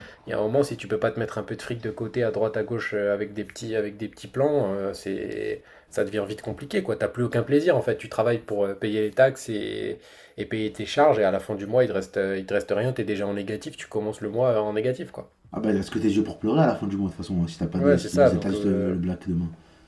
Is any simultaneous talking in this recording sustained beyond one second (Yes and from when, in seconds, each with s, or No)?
Yes, from 17.7 s